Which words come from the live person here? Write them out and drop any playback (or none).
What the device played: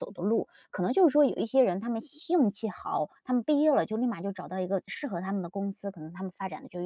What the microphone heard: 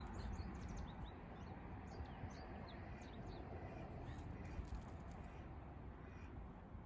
none